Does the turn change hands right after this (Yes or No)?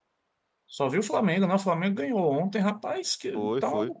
No